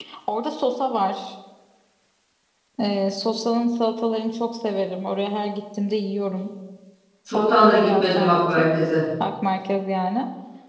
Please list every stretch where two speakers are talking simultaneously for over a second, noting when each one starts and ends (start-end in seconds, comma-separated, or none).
7.3-8.7